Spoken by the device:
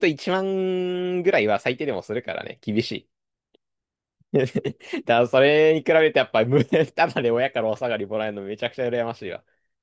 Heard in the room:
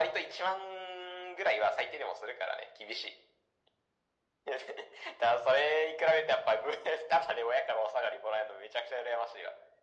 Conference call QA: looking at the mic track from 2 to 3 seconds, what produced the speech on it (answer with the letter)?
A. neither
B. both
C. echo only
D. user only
C